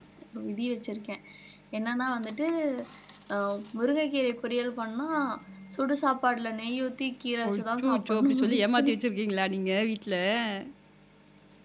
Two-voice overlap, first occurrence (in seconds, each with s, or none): 7.4 s